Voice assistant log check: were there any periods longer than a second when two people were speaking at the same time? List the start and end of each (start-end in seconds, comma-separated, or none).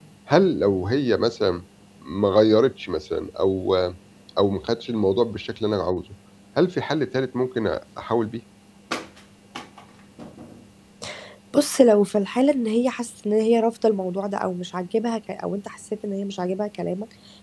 none